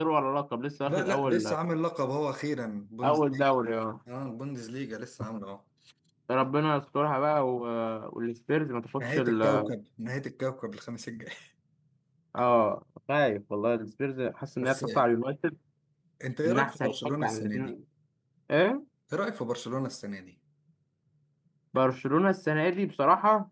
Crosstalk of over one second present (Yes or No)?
Yes